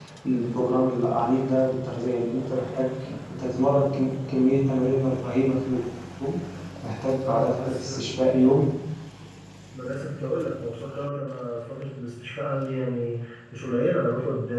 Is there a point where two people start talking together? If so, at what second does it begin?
7.2 s

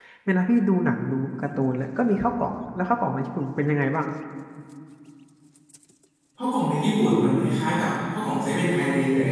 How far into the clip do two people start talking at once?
none

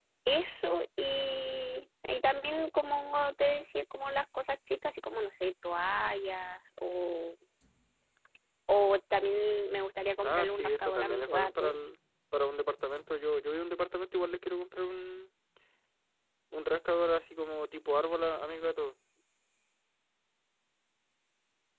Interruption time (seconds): 10.2 s

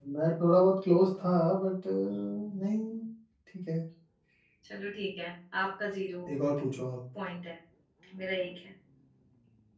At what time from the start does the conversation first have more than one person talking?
none

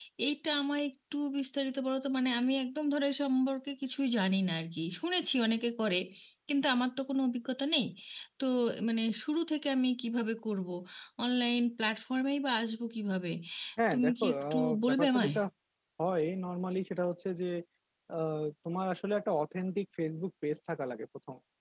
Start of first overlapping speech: 13.9 s

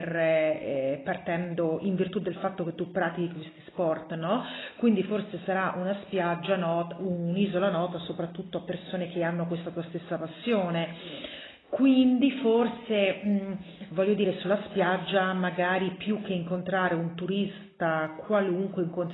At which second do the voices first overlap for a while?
none

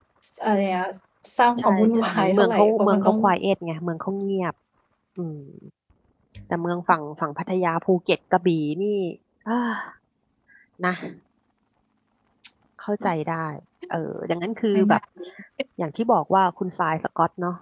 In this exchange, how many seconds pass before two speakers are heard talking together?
1.6 s

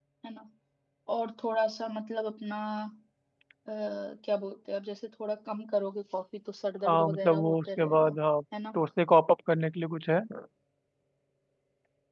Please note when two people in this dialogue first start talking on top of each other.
6.9 s

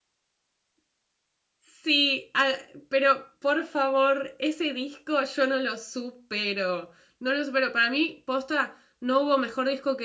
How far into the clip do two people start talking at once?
none

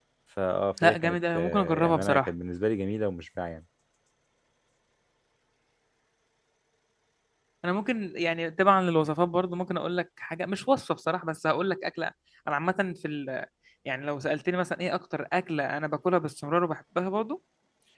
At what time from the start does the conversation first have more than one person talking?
0.8 s

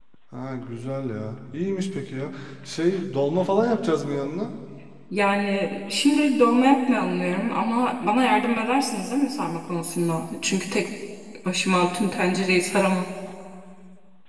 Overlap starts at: none

